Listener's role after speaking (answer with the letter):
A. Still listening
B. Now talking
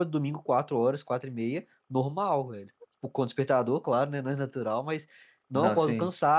A